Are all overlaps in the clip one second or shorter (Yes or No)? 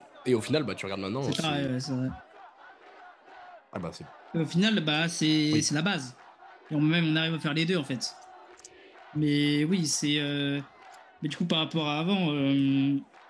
Yes